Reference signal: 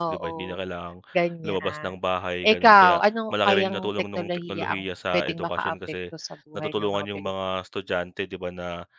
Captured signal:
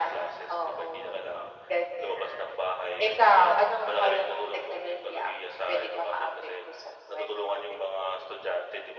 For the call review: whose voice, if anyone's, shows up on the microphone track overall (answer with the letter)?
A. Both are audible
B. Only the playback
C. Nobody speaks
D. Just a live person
B